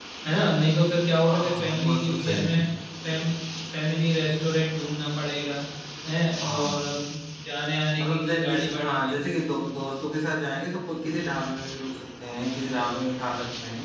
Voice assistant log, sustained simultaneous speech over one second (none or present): present